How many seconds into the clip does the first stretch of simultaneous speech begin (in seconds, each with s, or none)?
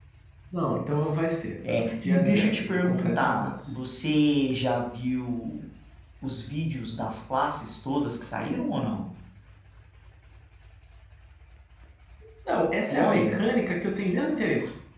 1.7 s